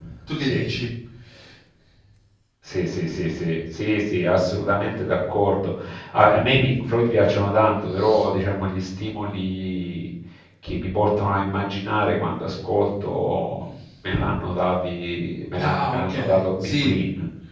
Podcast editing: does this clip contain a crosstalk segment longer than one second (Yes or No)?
Yes